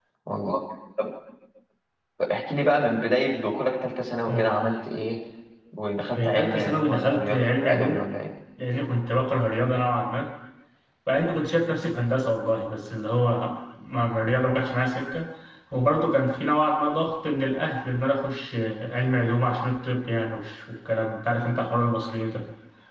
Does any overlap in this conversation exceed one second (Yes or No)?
Yes